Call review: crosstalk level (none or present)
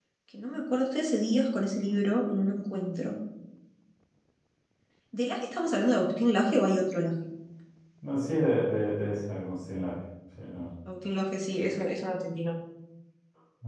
none